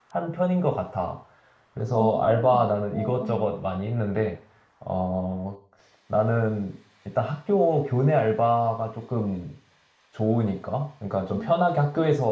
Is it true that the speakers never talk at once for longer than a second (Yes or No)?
No